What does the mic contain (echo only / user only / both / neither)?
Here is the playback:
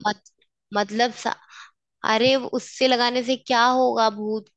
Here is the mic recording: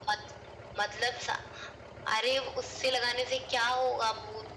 echo only